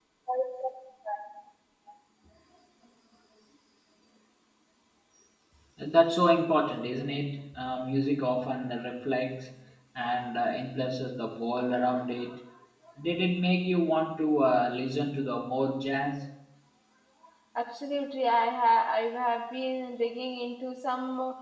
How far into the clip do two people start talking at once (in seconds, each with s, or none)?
none